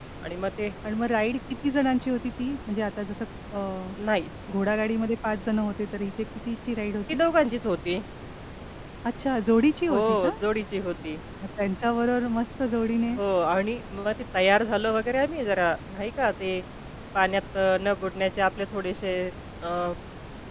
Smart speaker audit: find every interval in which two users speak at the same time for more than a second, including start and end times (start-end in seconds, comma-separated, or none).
none